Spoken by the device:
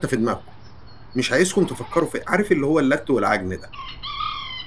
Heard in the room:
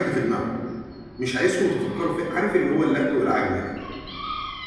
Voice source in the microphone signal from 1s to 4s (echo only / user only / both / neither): echo only